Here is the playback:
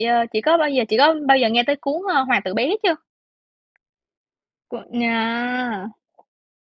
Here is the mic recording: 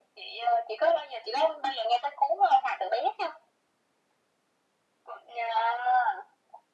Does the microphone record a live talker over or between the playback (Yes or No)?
No